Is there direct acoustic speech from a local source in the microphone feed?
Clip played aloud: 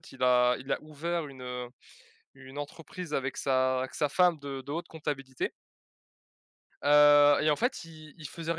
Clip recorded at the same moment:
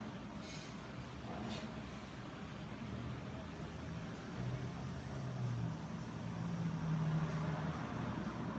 No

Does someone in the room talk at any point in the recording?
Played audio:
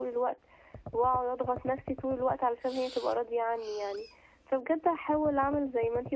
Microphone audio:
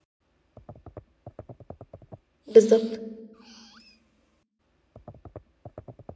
Yes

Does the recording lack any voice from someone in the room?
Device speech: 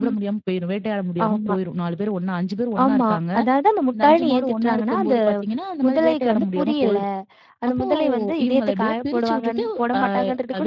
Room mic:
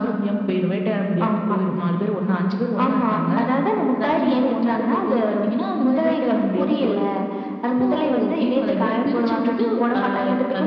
Yes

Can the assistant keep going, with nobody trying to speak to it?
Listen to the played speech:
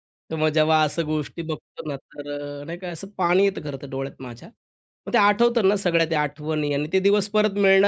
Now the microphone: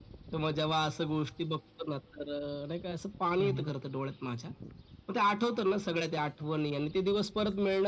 No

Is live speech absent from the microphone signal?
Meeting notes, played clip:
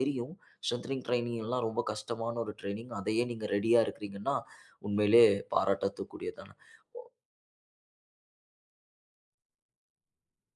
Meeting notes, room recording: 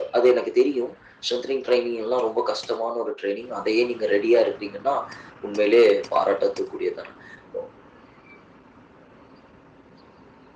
Yes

